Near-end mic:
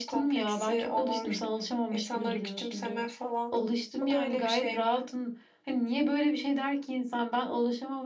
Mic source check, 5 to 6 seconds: echo only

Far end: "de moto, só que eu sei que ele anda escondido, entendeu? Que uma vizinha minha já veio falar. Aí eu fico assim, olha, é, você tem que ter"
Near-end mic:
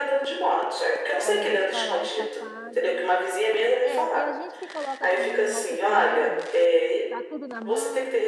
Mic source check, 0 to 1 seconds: echo only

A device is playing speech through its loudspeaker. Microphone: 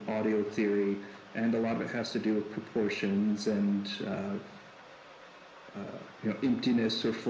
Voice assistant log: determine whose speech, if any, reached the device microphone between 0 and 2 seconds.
echo only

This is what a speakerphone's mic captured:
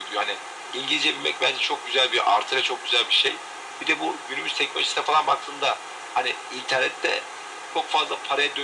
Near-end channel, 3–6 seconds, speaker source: echo only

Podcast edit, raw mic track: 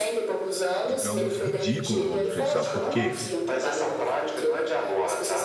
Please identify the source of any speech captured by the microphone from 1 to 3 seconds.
both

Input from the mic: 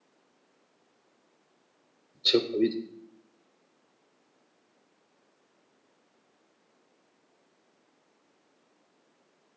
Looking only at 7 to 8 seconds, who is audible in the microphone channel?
neither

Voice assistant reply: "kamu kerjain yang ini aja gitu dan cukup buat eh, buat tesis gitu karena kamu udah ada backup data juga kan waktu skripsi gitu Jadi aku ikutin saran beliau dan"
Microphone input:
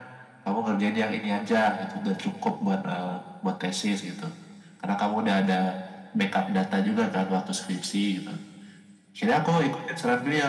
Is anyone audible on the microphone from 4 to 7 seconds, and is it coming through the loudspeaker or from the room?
echo only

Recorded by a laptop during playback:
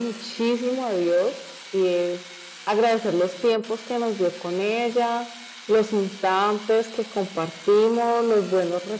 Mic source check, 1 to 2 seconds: echo only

